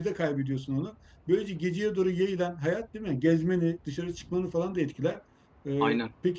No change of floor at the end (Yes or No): Yes